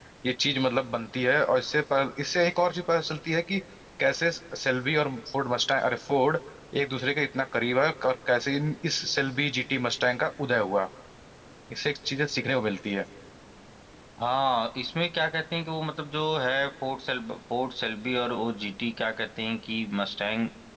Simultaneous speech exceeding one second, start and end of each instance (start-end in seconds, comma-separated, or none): none